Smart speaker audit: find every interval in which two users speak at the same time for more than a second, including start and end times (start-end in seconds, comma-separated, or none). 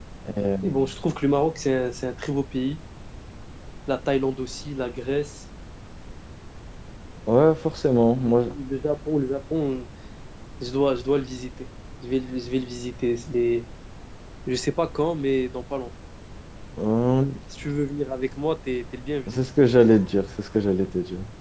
none